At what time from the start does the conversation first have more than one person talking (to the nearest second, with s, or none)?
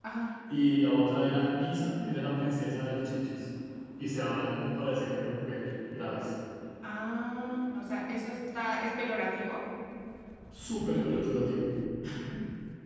none